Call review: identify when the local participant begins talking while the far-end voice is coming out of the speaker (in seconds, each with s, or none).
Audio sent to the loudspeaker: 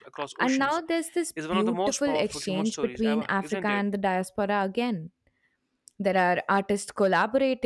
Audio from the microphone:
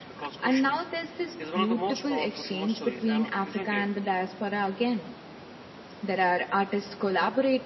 none